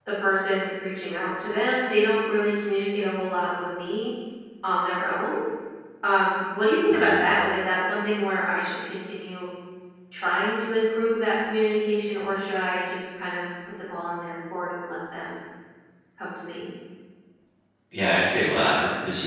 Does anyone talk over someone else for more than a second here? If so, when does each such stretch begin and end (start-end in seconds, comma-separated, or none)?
none